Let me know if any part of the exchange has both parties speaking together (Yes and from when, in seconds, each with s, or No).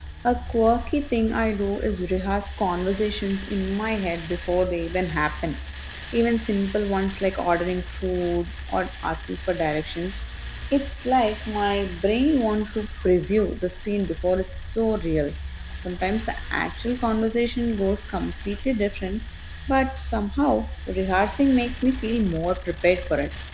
No